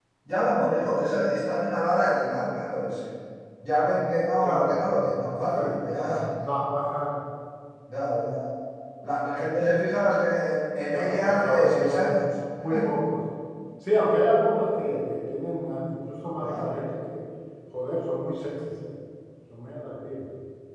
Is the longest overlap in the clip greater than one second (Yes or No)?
Yes